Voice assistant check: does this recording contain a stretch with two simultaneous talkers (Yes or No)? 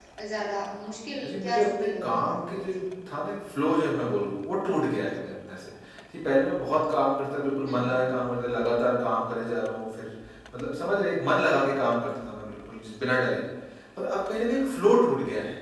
Yes